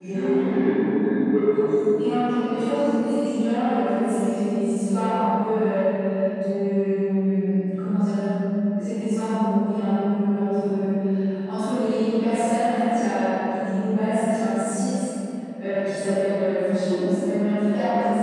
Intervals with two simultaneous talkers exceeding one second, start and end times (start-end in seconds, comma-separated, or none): none